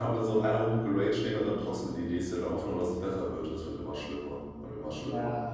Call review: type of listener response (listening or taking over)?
taking over